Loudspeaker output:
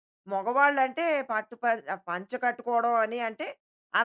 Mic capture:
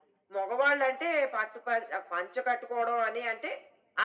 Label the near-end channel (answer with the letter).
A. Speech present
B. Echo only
B